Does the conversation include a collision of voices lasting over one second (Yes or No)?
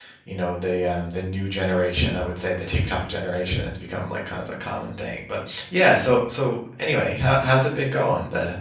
No